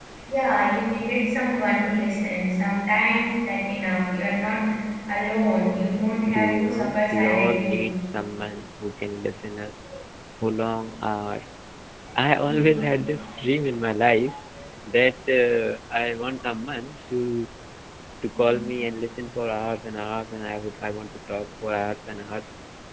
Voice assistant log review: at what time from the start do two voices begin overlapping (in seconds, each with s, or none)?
6.2 s